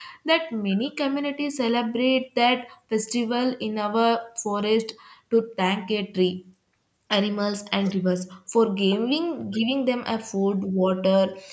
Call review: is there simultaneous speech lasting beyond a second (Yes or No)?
No